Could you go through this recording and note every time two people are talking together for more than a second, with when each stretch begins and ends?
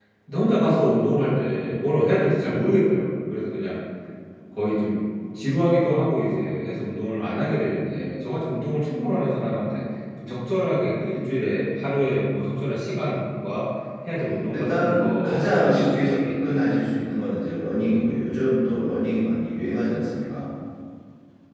14.5-16.6

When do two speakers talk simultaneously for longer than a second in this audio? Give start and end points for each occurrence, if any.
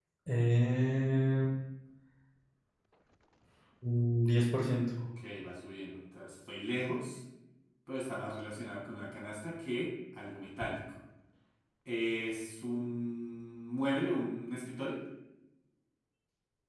none

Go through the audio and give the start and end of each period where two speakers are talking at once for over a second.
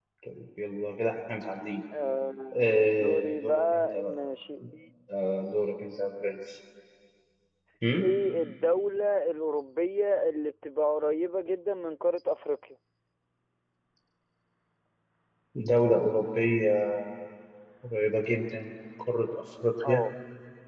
2.6-4.1

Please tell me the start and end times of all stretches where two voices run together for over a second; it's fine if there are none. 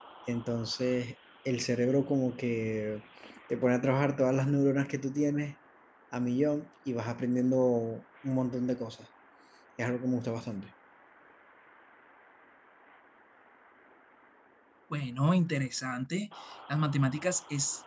none

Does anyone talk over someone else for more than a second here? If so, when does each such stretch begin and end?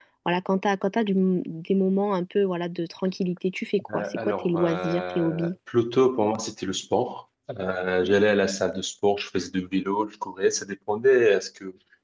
3.9-5.5

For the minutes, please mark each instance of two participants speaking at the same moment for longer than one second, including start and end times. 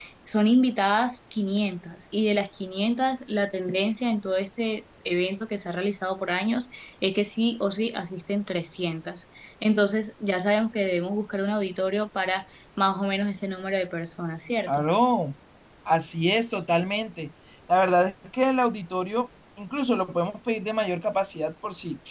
none

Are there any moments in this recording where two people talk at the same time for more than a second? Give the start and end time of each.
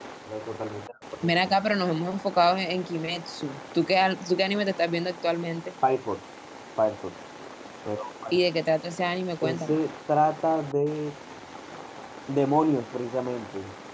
none

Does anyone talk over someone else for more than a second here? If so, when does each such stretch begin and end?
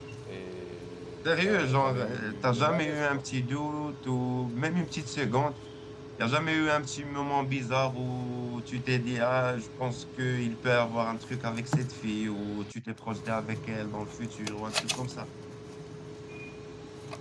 1.2-3.2

